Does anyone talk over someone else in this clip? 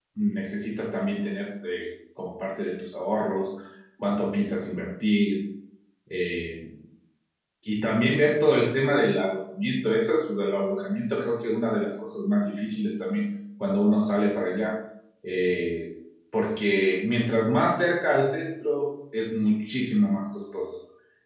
No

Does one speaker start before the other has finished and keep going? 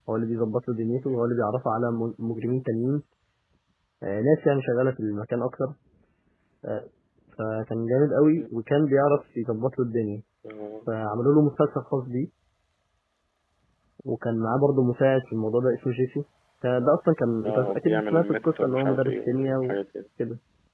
Yes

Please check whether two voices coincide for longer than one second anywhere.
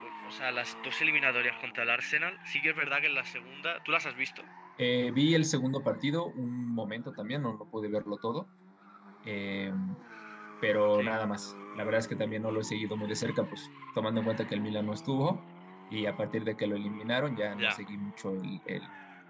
No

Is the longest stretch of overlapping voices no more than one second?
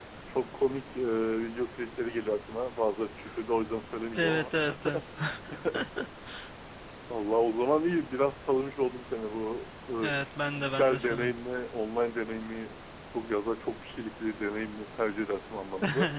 No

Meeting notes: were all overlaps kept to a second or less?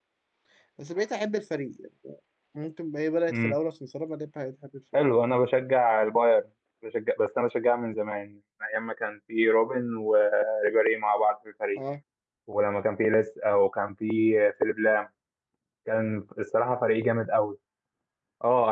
Yes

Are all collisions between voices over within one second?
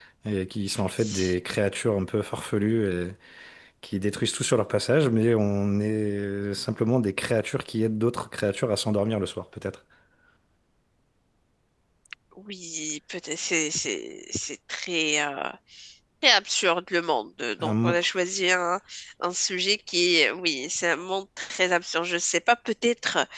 Yes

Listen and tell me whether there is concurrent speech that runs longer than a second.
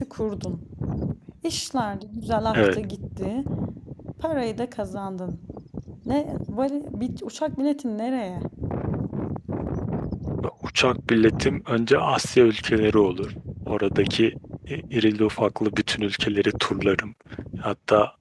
No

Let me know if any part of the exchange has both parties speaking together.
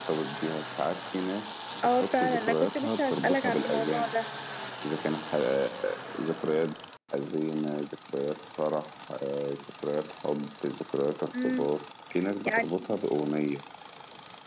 Yes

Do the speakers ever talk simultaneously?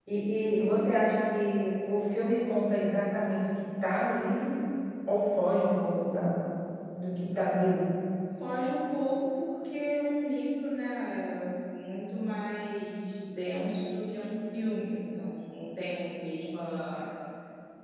No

